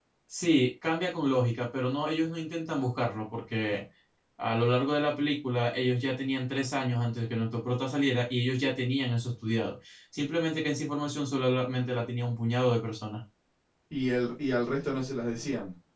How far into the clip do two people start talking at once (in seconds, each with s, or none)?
none